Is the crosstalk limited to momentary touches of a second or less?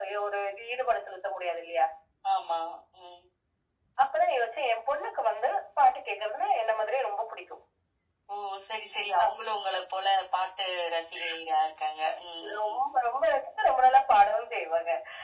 Yes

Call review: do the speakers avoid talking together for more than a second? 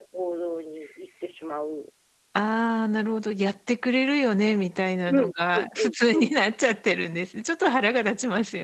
No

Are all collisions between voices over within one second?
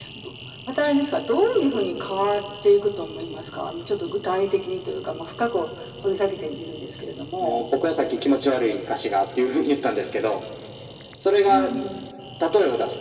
Yes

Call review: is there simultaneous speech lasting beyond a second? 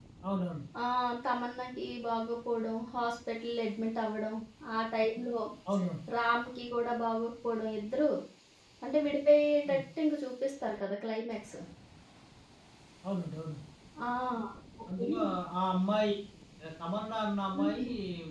No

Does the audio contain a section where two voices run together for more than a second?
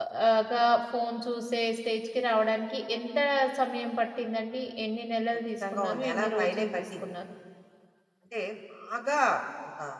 Yes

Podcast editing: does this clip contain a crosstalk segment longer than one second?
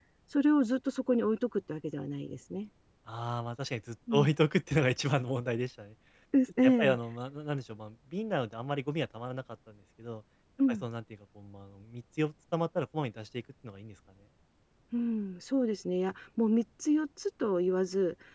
No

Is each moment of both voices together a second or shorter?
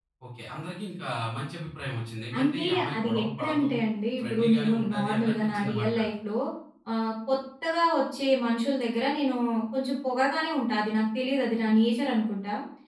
No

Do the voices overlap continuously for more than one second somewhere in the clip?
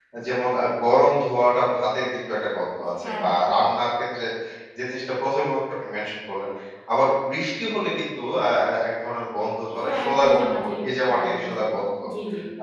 Yes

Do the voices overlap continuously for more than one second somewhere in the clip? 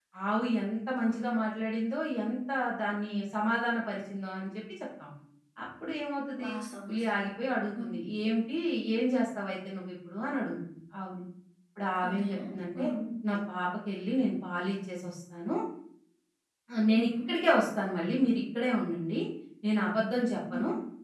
No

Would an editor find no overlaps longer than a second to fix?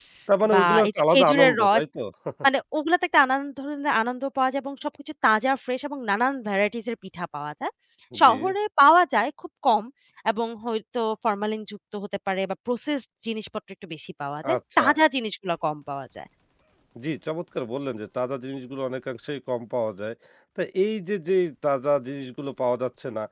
No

